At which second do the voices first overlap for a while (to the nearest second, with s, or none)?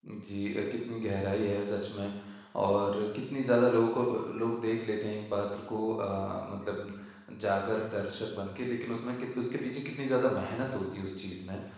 none